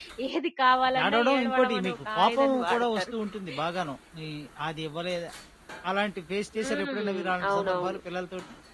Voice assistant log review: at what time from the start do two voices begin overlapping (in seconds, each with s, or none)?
1.0 s